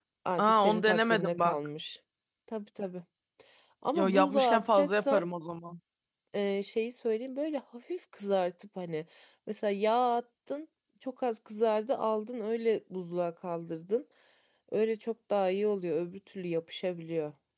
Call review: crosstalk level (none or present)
present